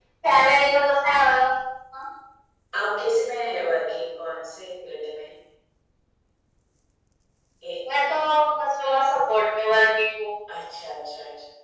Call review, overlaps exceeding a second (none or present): none